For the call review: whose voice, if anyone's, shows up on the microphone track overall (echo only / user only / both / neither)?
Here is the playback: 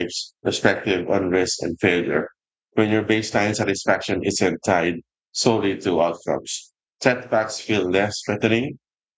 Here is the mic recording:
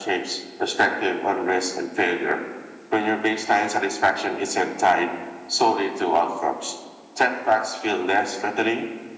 echo only